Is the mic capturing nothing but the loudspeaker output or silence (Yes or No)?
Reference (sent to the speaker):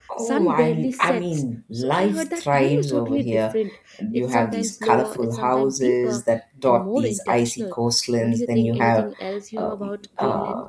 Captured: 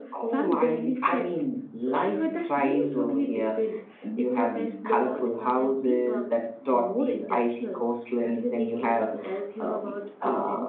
Yes